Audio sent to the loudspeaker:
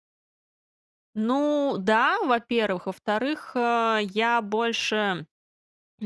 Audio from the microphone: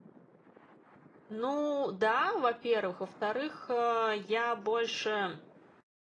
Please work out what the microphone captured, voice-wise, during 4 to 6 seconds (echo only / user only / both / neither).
echo only